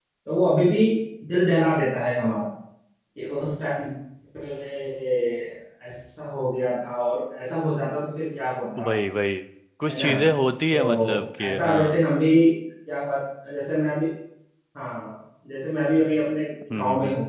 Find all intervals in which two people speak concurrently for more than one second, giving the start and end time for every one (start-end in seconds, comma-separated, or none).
10.7-12.0